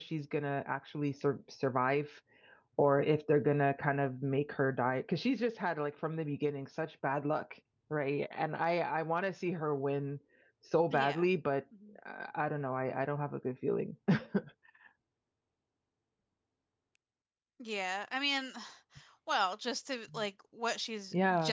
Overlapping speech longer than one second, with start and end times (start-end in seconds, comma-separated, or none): none